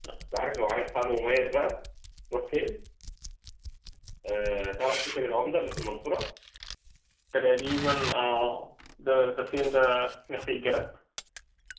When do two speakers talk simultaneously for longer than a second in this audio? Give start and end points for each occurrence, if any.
none

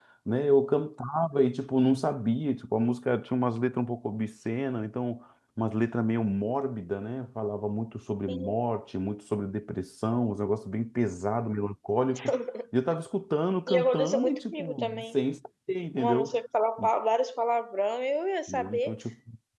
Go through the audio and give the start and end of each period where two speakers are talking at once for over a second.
13.7-15.0

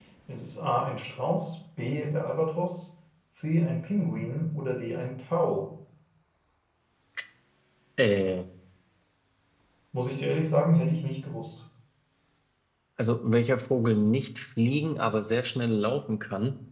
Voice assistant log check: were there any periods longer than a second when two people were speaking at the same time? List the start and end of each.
none

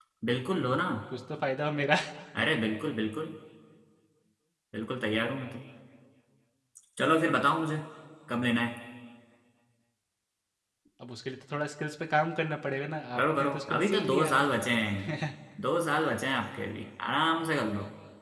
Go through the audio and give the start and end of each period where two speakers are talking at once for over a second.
13.2-14.4

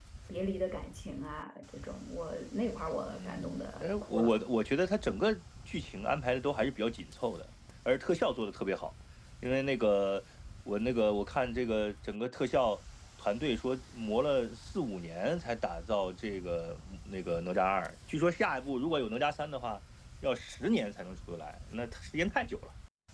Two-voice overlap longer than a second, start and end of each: 3.1-4.3

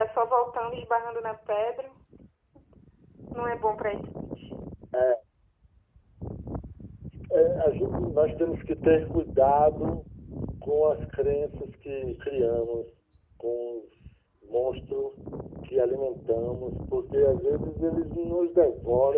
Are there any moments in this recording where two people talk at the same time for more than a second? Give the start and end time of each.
none

